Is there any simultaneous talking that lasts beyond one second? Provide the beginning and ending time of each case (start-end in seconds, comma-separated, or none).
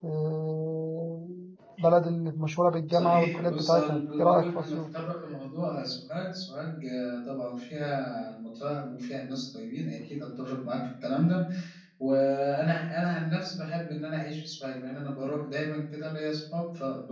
2.9-4.9